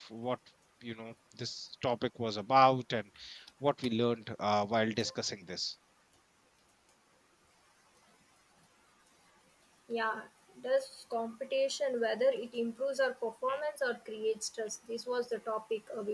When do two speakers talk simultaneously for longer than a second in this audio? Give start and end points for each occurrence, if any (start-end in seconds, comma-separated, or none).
none